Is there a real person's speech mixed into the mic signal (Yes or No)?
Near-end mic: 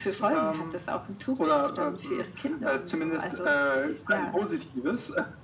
No